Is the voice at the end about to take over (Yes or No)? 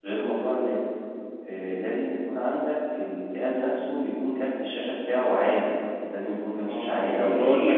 Yes